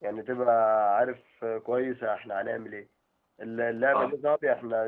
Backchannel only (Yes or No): Yes